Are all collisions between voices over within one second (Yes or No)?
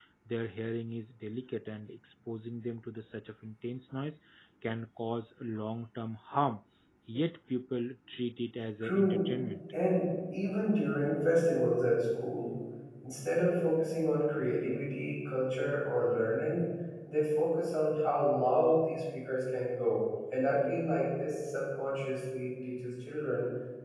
Yes